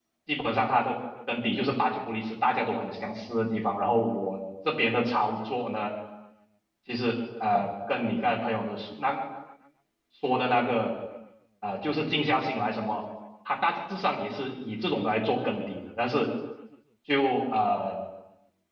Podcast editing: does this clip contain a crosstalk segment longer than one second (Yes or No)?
No